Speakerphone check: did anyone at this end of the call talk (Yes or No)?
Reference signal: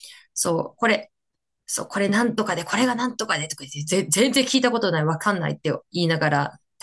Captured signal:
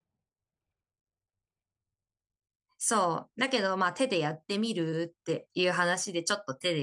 Yes